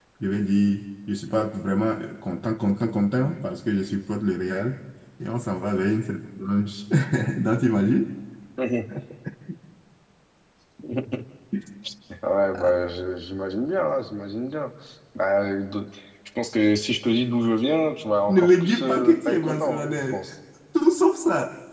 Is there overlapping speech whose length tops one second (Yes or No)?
Yes